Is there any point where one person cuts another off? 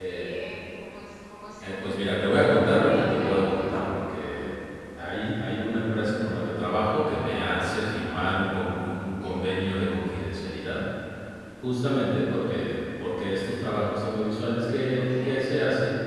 Yes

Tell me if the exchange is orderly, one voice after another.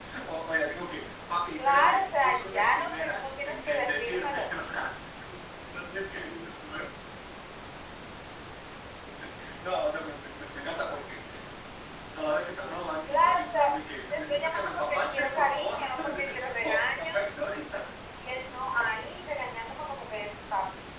No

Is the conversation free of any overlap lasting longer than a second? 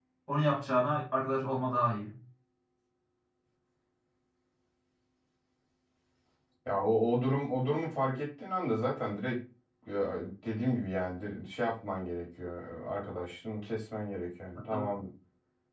Yes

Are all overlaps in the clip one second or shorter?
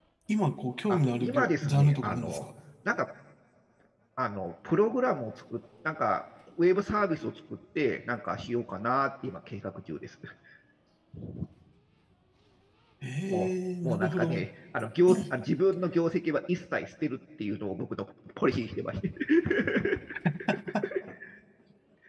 No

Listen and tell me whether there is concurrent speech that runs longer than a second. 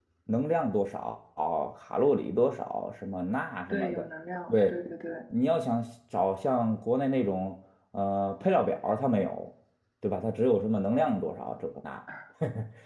No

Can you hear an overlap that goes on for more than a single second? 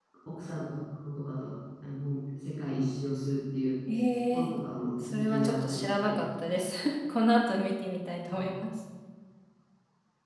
Yes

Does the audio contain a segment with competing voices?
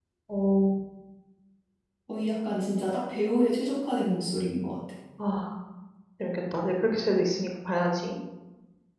No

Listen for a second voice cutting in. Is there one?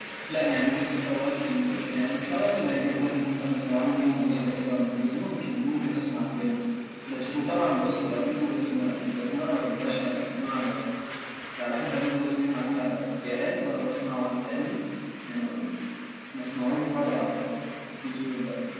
No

